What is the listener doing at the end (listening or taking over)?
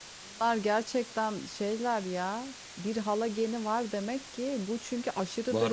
listening